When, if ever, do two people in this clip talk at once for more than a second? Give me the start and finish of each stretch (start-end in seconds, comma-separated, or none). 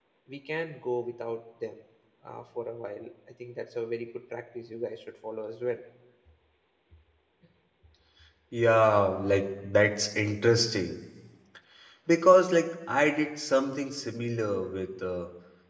none